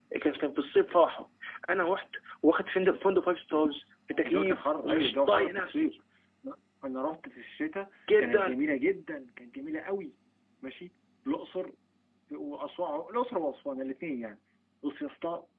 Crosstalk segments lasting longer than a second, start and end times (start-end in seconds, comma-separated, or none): 4.2-5.9